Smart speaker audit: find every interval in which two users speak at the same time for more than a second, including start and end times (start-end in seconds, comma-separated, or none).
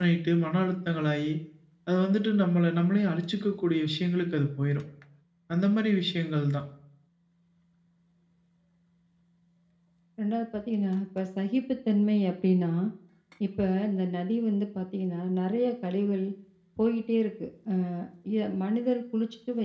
none